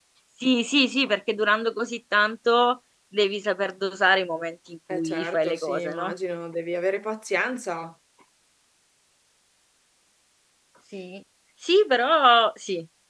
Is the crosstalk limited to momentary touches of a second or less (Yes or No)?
No